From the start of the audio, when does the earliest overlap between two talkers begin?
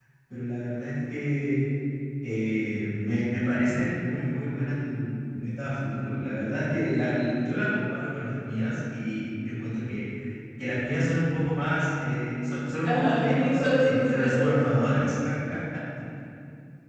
12.8 s

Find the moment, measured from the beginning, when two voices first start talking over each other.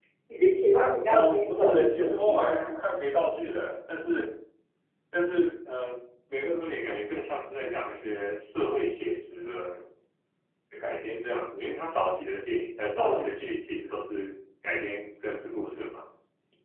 1.1 s

